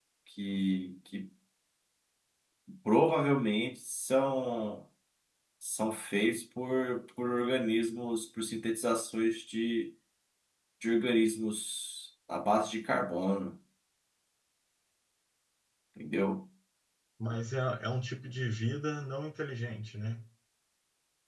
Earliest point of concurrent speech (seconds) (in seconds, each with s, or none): none